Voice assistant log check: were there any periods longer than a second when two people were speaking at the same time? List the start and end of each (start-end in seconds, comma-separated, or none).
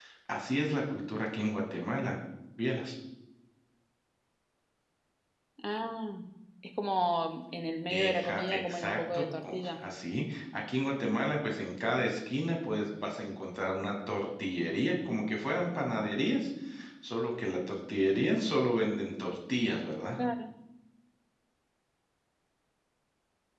7.9-9.6